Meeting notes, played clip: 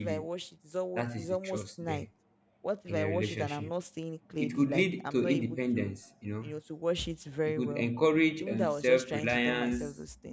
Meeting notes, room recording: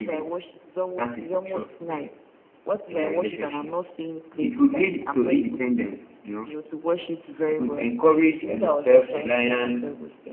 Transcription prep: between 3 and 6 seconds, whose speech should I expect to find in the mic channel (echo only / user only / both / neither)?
echo only